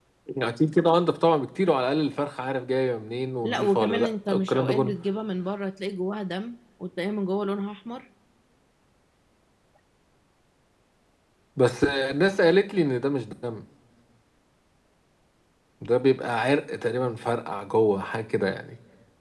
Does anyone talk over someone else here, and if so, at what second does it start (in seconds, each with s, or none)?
3.4 s